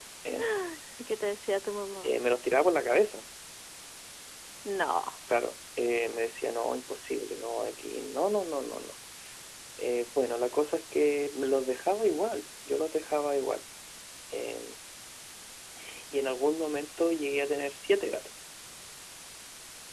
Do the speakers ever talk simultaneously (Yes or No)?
No